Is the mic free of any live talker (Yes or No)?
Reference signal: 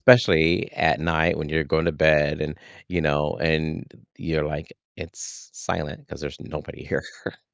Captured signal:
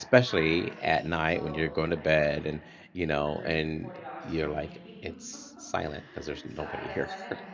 No